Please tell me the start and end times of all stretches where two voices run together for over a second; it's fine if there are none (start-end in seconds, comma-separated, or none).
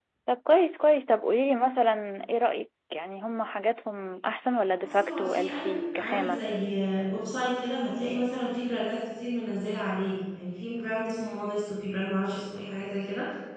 4.8-6.4